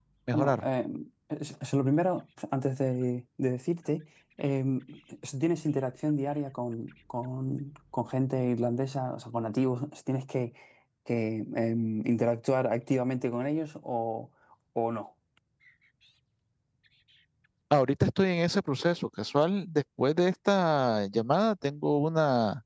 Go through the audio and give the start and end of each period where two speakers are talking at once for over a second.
none

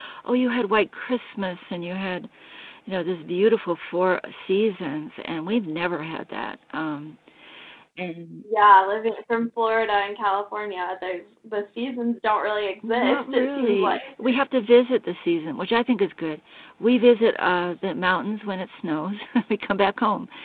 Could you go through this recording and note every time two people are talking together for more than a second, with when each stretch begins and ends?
12.8-14.1

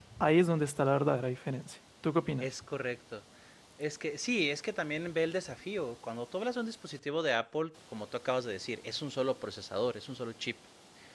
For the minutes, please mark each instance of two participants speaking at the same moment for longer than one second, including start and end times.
none

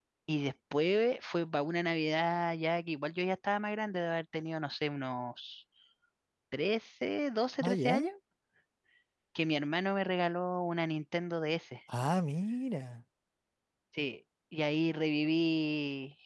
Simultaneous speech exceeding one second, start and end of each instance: none

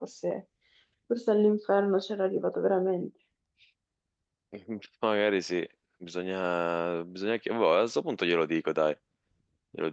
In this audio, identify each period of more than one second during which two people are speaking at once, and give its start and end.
none

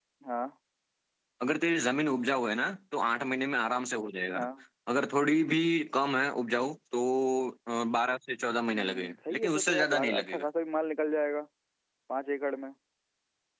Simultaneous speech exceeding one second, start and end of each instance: 8.8-10.4

